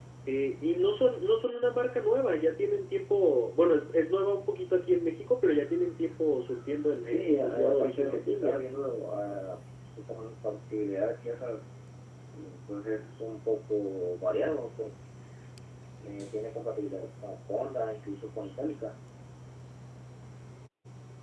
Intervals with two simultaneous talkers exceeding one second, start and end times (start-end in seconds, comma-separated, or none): 7.0-8.7